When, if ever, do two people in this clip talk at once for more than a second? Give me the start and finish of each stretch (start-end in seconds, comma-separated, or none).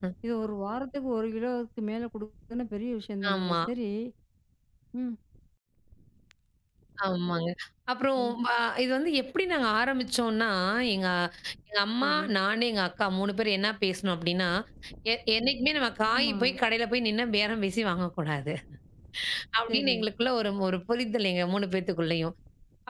none